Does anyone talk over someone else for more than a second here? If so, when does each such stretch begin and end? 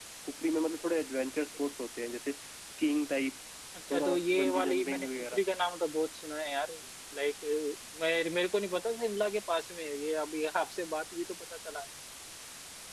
3.9-5.4

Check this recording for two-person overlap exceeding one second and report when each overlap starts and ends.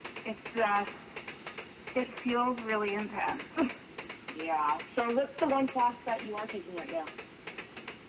none

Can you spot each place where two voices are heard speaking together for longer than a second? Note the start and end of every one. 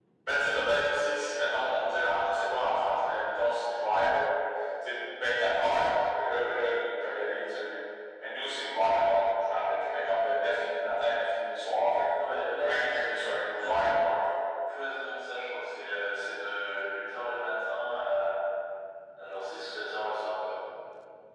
12.6-14.0

